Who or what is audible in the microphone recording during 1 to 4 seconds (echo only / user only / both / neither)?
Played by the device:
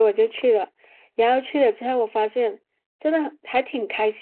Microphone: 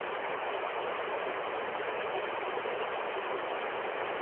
neither